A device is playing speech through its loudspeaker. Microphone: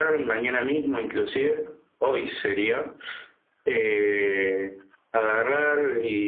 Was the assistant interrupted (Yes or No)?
No